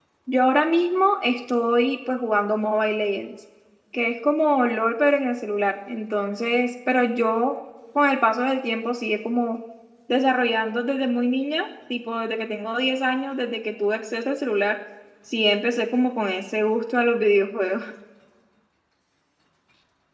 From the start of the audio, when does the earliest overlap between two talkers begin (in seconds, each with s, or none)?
none